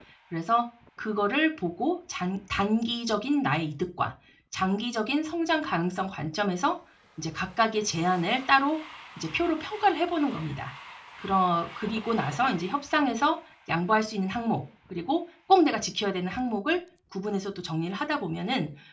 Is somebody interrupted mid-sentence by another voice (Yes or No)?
No